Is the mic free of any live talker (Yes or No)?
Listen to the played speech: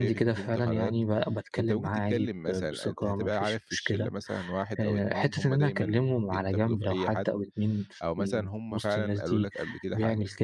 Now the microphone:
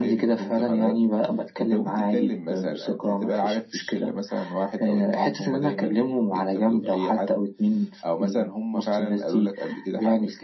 Yes